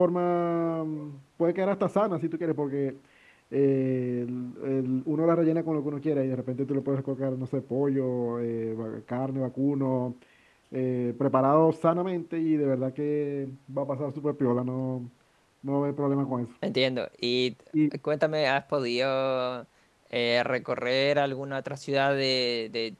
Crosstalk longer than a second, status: none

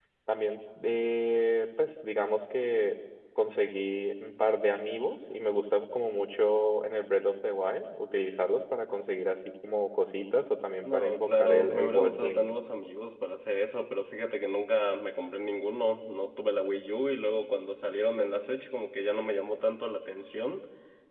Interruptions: present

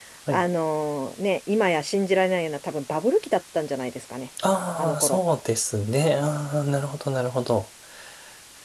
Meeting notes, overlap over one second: none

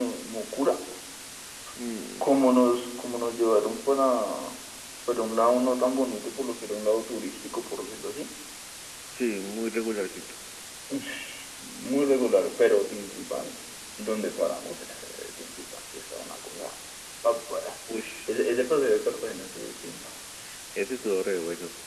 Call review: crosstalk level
none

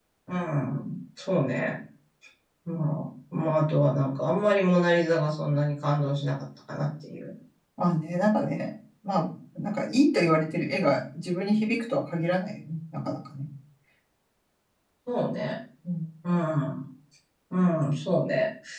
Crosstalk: none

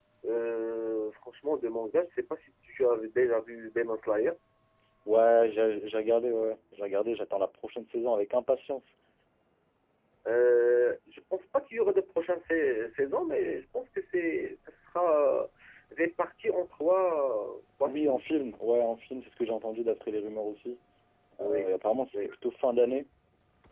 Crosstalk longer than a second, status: none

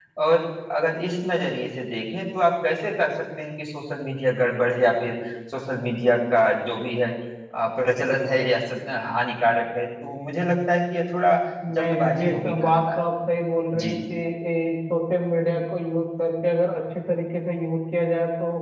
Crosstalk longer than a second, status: present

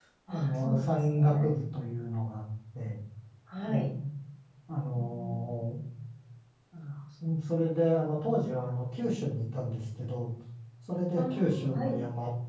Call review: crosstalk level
present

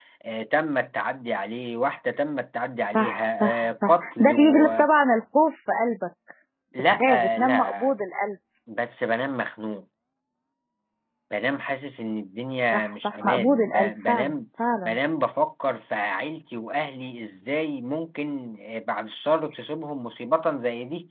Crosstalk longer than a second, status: present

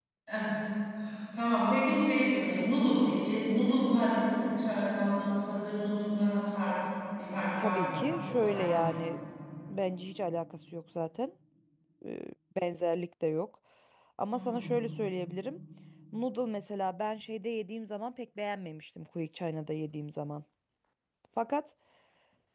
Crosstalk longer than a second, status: present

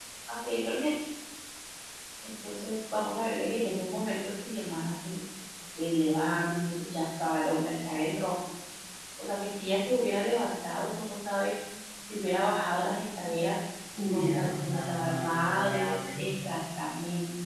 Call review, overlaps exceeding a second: present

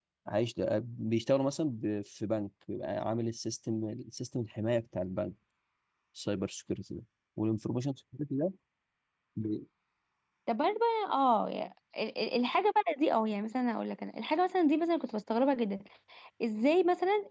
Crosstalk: none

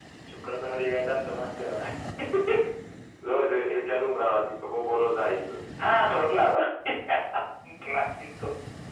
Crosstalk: none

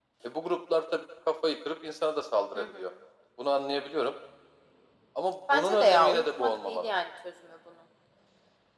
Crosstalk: present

